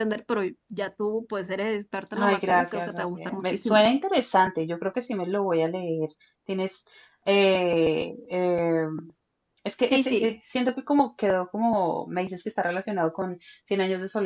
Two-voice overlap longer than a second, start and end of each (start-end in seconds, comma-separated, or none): 2.1-3.8